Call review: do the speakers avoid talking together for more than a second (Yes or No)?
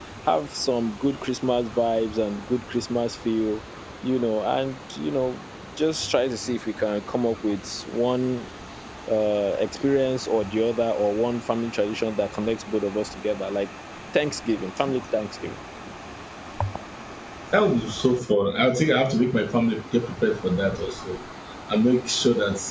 Yes